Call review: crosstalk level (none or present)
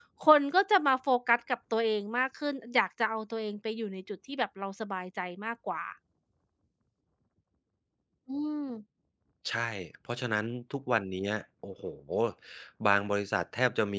none